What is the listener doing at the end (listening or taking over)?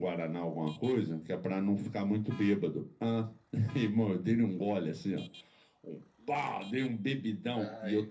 listening